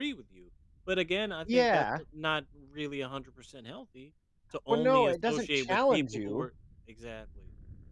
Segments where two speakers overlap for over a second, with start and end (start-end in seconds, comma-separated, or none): 4.7-6.5